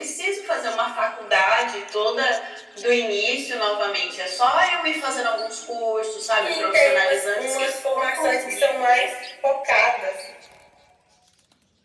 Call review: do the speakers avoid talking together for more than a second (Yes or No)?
No